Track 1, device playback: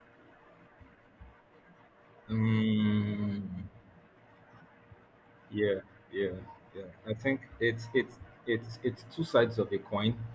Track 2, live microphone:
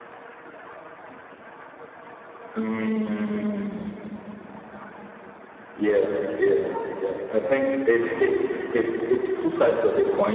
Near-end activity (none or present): none